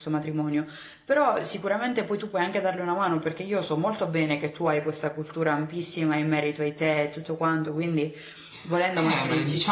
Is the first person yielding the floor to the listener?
Yes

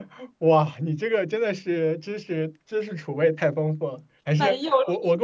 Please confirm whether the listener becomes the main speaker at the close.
No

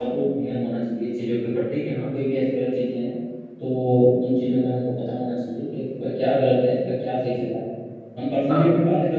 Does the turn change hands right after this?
No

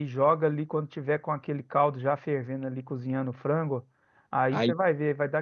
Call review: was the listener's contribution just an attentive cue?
Yes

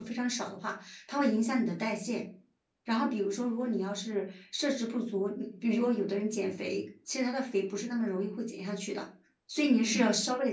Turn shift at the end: No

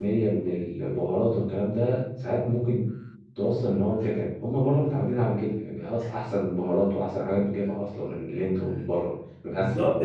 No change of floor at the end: No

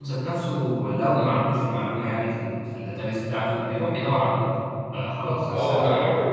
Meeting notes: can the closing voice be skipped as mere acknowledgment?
No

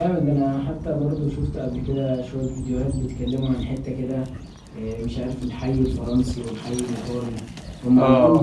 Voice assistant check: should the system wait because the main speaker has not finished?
Yes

